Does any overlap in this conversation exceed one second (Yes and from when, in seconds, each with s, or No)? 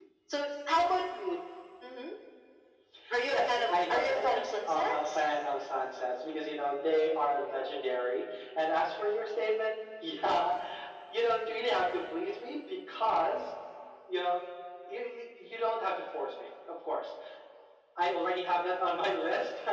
Yes, from 3.2 s